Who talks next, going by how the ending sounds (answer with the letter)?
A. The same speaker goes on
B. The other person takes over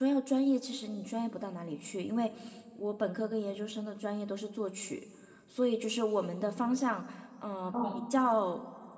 A